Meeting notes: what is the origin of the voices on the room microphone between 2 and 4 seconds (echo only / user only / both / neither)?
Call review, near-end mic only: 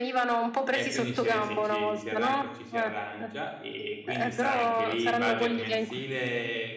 both